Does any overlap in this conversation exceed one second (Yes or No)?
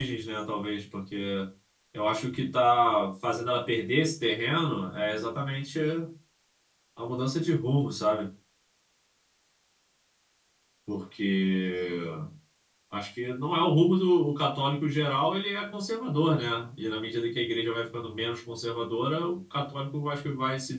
No